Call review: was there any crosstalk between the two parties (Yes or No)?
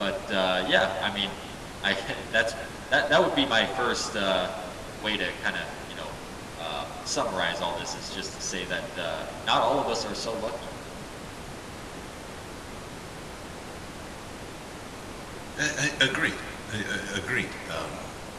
No